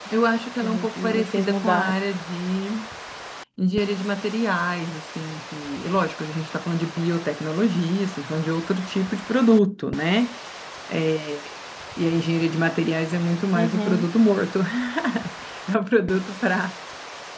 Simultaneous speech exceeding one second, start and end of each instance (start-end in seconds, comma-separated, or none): 0.6-2.0